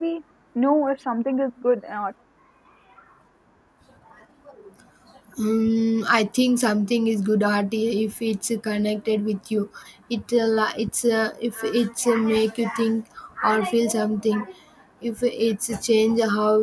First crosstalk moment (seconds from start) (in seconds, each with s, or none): none